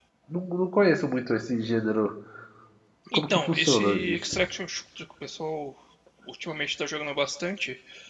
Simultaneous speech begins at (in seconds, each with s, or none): 3.1 s